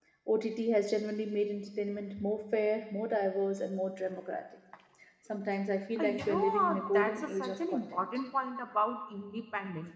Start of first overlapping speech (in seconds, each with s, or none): 6.0 s